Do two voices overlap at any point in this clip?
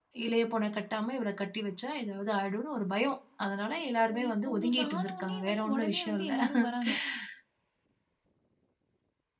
Yes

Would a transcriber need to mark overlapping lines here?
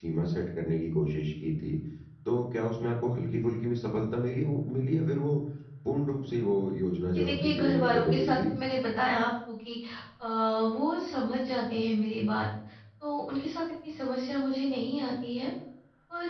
Yes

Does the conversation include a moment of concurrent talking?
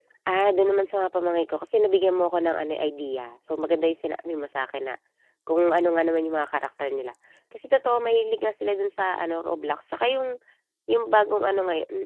No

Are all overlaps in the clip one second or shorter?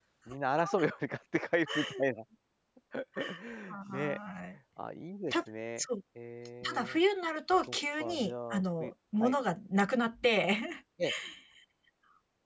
No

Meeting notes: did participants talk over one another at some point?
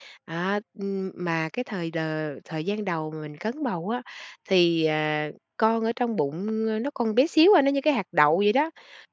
No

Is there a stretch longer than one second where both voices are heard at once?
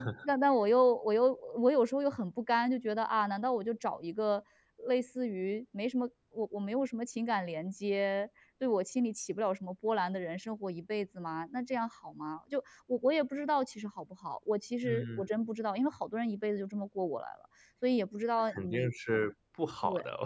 No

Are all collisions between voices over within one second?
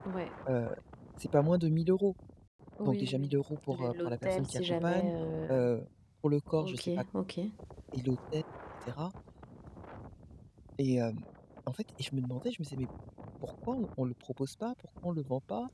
No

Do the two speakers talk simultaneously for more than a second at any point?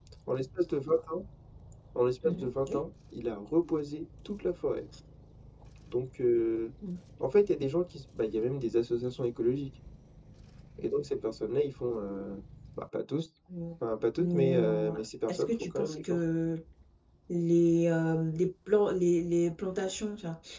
Yes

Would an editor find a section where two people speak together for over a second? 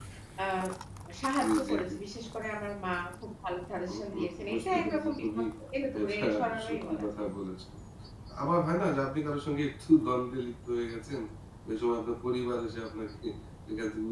Yes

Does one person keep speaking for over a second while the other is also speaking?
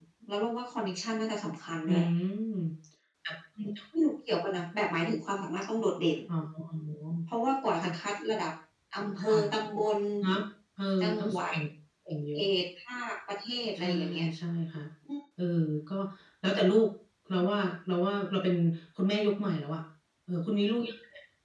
No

